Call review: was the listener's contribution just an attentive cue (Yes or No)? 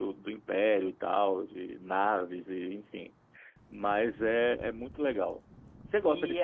No